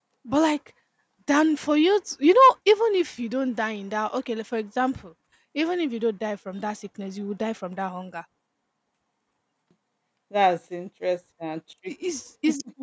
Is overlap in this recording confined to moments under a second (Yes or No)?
Yes